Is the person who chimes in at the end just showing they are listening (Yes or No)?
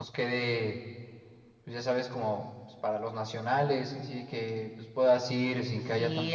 No